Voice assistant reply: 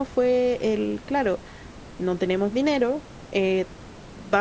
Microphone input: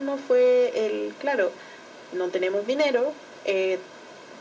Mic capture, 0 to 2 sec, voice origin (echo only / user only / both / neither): echo only